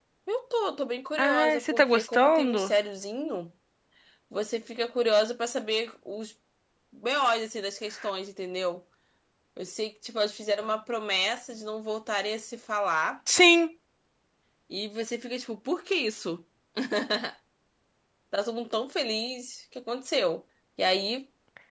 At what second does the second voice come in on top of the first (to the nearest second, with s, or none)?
1 s